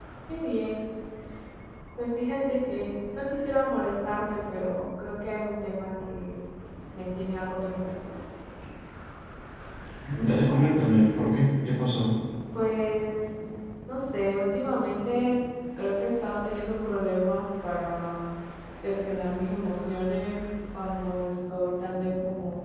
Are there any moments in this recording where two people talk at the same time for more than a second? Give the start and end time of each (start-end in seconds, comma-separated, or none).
none